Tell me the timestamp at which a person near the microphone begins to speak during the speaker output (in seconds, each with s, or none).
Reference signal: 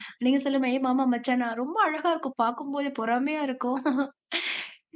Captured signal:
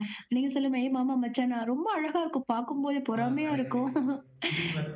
3.2 s